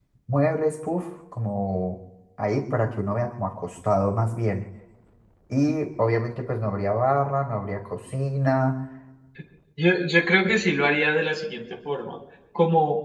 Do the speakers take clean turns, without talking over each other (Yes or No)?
Yes